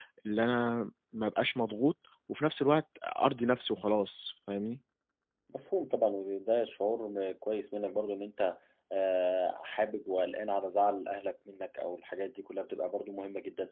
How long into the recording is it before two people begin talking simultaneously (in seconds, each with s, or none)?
none